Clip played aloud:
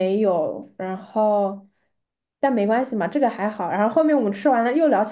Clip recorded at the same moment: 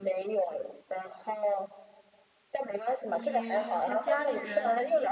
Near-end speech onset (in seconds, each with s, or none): 3.0 s